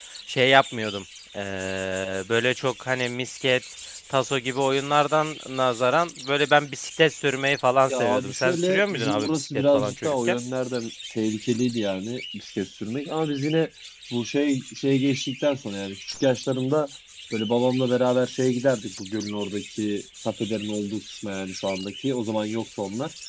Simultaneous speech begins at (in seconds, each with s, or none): 7.9 s